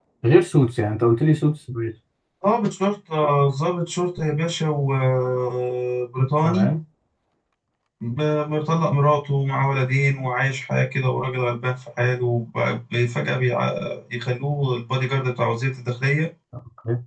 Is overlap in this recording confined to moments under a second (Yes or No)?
Yes